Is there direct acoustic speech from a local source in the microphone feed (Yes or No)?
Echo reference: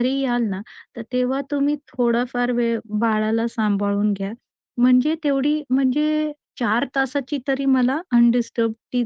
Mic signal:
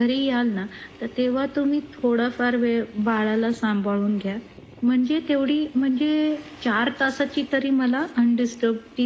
No